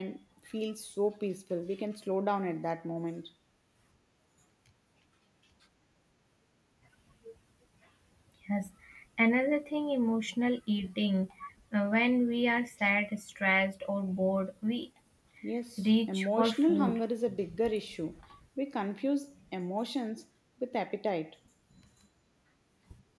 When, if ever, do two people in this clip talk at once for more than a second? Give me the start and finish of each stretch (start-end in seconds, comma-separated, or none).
15.8-17.0